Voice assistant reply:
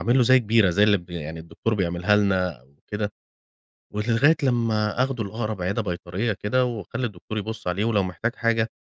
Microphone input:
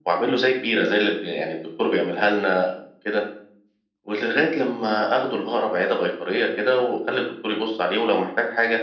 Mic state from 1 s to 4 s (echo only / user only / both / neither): echo only